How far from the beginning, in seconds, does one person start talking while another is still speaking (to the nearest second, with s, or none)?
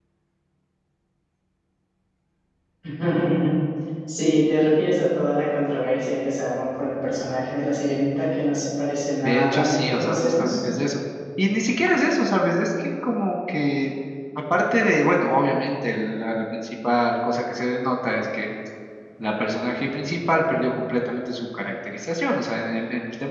9 s